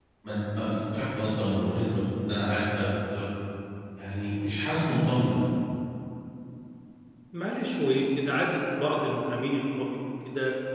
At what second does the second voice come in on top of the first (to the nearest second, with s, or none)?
none